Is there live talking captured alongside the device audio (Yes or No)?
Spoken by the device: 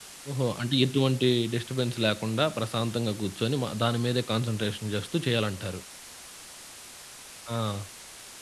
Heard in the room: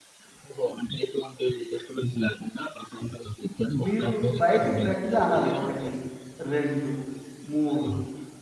Yes